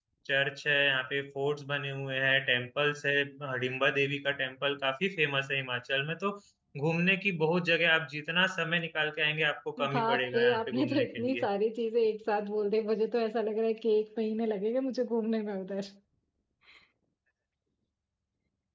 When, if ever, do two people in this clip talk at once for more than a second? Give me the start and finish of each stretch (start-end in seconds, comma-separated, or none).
9.9-11.5